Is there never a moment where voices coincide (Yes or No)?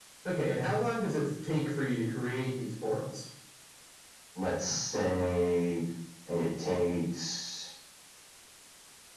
Yes